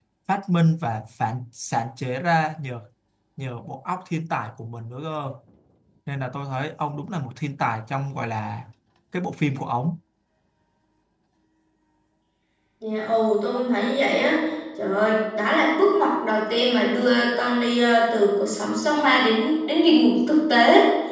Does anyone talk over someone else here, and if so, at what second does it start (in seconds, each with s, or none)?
none